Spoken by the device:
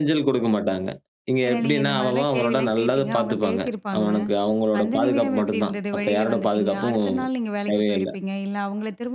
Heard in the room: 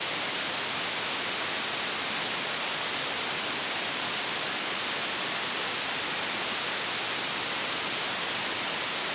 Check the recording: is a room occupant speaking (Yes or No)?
No